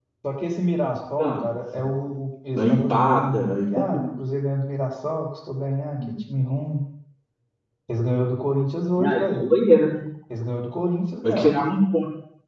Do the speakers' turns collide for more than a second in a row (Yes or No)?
Yes